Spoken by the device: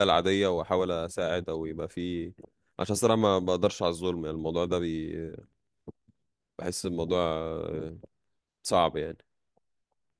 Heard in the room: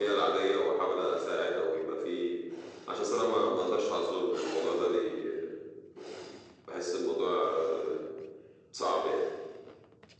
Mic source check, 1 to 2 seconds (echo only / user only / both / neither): echo only